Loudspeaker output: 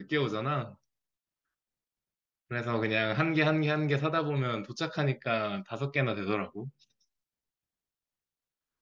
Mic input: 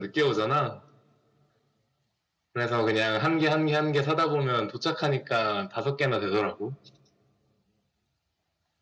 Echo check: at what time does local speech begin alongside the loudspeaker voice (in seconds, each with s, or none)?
none